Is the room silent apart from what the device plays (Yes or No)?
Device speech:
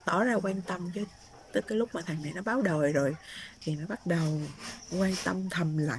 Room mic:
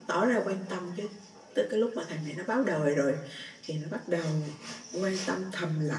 Yes